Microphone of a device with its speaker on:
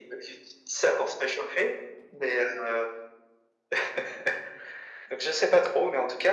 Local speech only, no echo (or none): none